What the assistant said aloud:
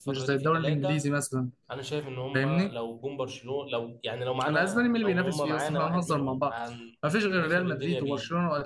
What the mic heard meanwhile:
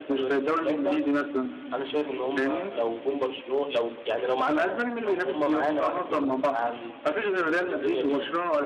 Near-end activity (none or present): none